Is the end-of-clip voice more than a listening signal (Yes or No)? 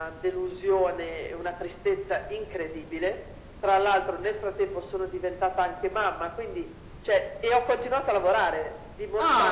No